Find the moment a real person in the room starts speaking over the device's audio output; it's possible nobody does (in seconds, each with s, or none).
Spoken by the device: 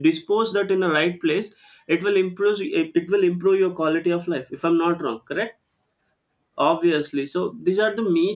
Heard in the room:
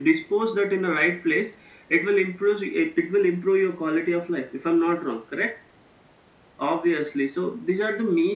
none